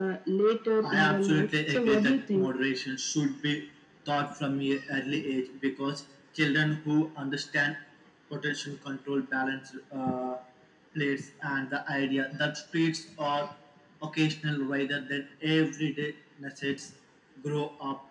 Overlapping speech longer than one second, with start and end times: 0.8-2.5

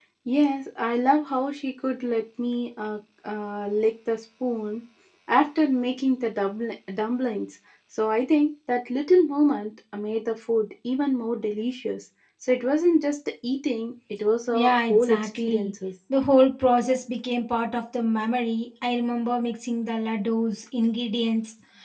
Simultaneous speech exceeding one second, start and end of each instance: 14.5-15.7

